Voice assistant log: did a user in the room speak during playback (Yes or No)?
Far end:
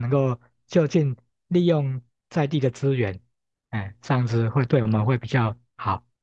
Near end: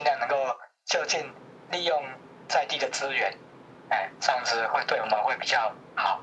No